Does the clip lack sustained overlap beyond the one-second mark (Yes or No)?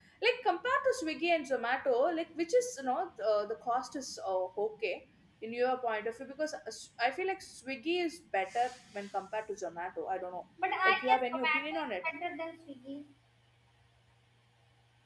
No